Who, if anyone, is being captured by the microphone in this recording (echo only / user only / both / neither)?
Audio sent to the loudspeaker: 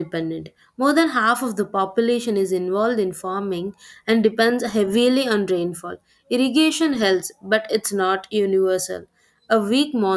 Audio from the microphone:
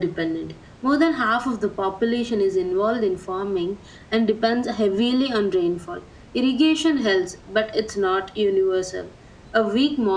echo only